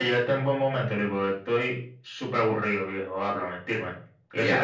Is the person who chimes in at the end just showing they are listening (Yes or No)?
No